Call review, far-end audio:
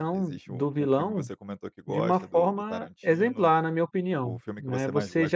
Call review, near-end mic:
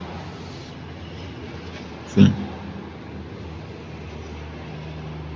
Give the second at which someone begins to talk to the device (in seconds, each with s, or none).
2.0 s